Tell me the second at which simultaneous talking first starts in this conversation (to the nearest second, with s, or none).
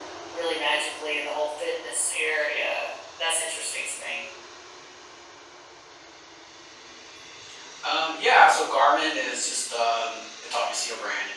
none